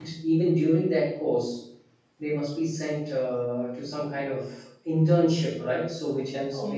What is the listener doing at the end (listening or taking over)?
taking over